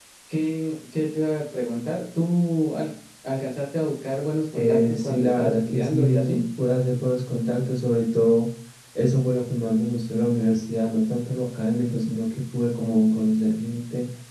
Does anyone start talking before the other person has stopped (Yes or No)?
Yes